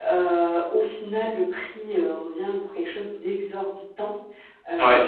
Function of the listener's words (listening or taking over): listening